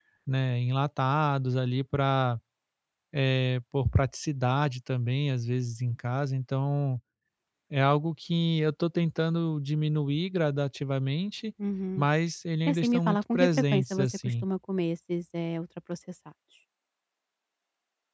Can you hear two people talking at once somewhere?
Yes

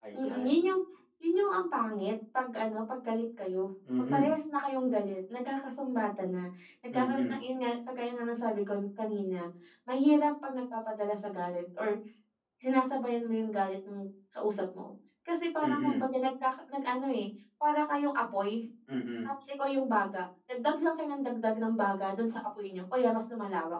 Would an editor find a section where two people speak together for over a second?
No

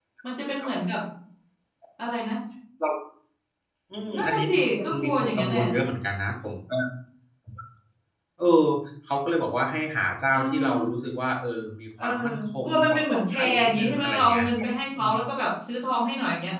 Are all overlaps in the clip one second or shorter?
No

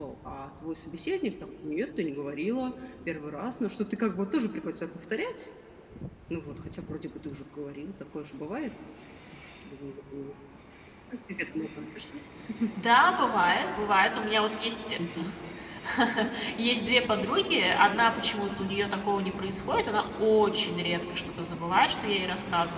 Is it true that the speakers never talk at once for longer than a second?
Yes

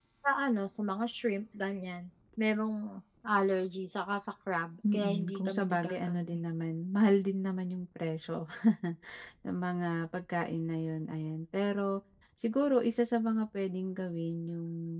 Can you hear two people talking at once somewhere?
Yes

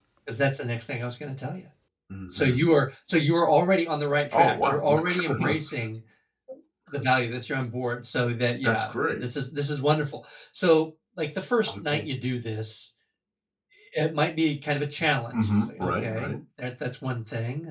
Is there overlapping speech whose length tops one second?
Yes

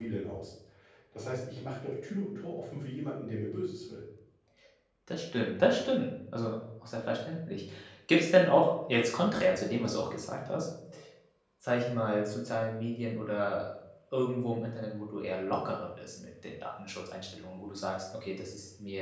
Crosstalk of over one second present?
No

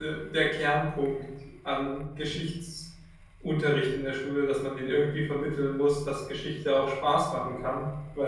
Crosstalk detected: No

